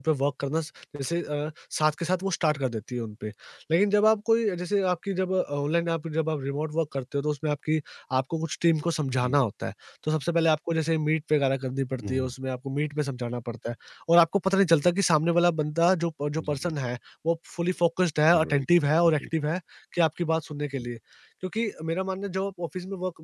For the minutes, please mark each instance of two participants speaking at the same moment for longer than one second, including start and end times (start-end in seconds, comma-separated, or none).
none